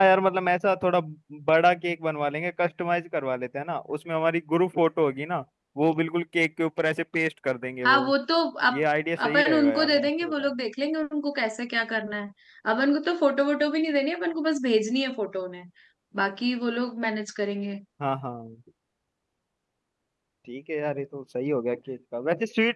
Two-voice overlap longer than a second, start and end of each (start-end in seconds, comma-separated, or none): 9.2-10.5